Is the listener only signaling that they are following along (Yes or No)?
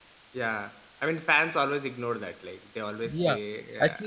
No